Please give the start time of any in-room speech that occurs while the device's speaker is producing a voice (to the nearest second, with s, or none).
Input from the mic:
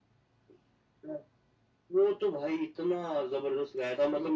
none